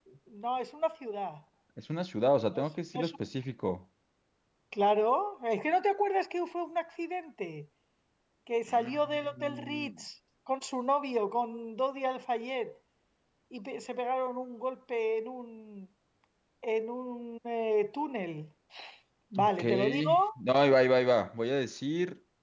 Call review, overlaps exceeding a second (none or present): present